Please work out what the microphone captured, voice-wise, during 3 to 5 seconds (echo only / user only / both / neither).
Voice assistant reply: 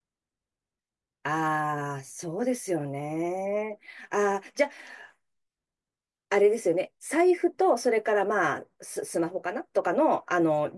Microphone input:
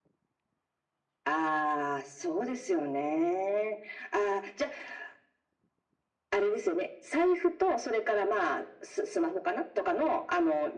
echo only